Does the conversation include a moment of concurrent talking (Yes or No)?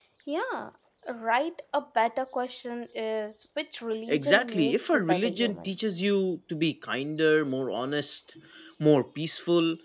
Yes